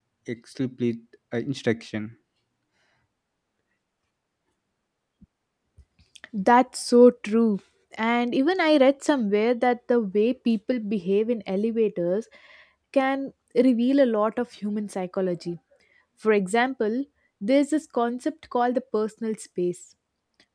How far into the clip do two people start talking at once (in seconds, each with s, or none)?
none